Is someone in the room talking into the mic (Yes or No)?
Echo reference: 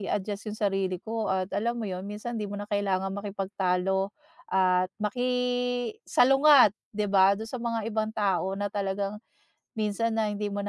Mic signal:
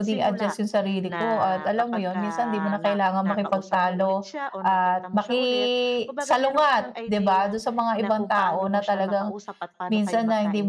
Yes